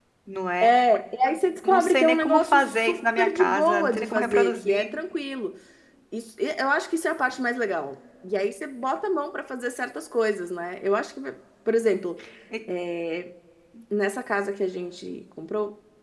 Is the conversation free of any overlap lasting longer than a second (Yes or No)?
No